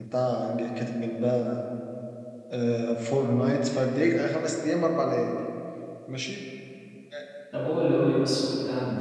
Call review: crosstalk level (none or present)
none